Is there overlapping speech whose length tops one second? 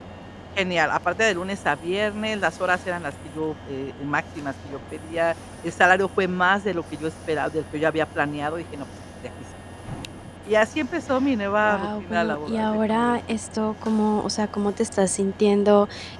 Yes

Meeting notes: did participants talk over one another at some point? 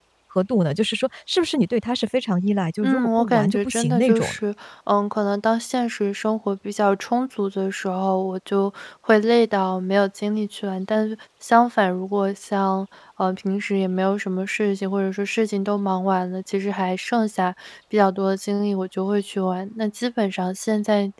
Yes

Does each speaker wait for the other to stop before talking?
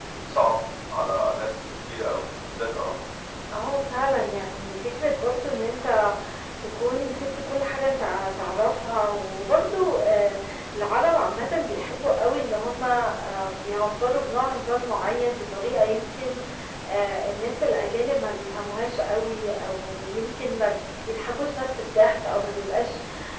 Yes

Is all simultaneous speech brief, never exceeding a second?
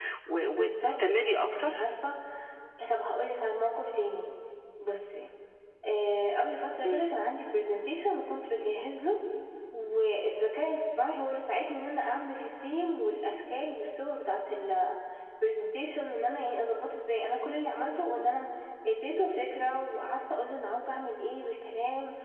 No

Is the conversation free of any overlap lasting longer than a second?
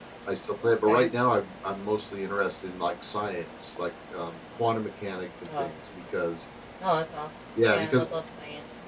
Yes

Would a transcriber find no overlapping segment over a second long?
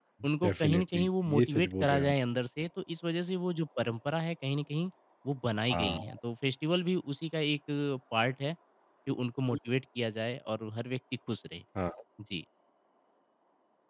No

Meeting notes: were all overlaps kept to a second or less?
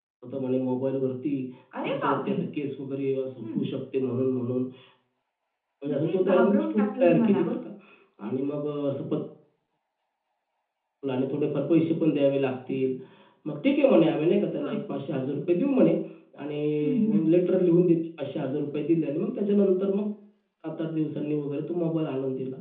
No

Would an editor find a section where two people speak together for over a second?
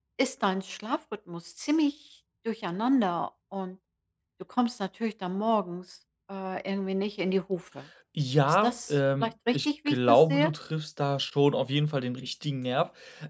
Yes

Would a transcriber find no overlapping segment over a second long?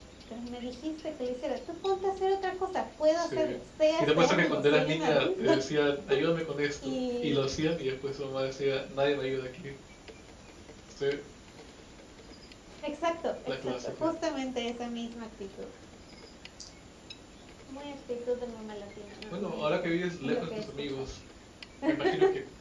No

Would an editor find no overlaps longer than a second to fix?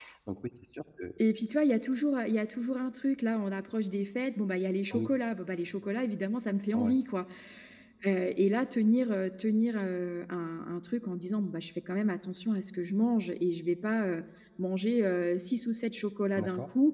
Yes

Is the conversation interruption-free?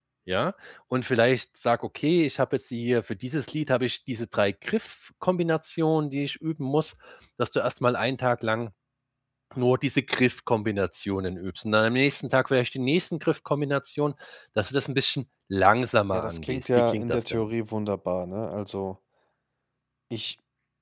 No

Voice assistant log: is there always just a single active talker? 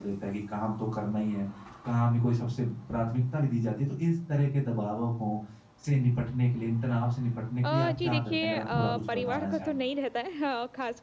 No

